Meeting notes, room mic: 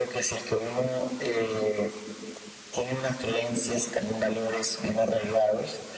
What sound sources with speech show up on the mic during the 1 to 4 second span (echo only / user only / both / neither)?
echo only